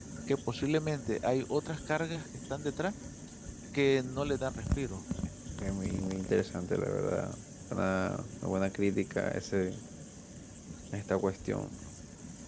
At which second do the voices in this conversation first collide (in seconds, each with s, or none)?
none